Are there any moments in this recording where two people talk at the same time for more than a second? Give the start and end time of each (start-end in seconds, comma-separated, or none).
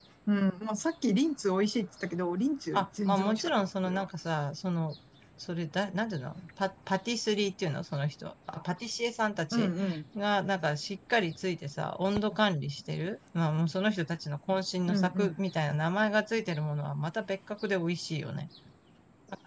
2.7-4.1